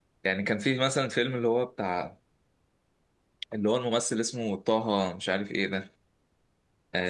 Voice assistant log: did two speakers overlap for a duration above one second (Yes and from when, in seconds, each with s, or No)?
No